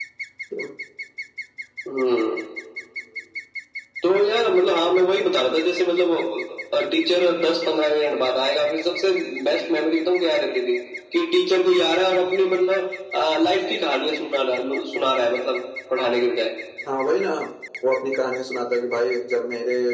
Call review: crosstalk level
none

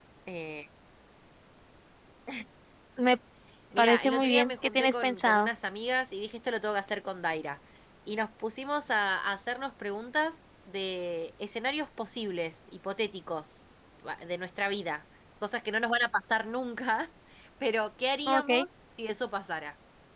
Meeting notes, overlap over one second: present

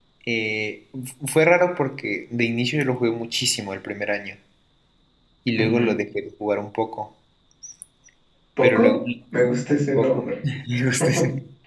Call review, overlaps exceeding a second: none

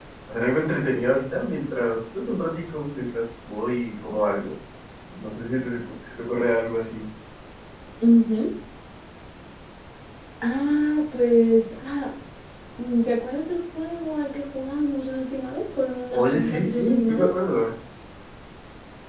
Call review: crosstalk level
present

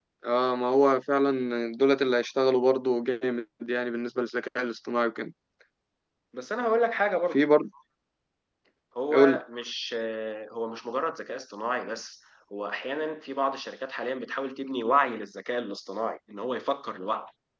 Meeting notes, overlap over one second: none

